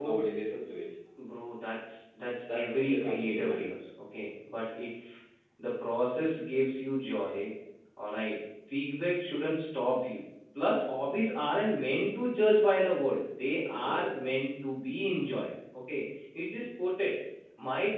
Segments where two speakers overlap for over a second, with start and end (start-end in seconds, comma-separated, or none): 2.5-3.7